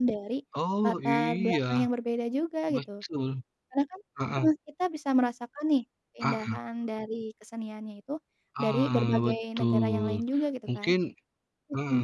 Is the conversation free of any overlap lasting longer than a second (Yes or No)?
No